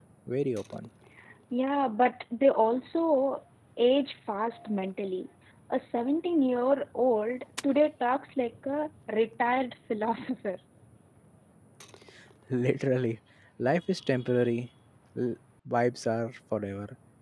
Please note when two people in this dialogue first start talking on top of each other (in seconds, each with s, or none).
none